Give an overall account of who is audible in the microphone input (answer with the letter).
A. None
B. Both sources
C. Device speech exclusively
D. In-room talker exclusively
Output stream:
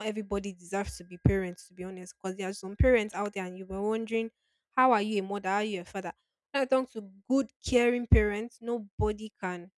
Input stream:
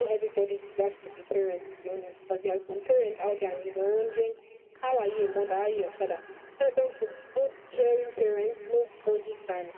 C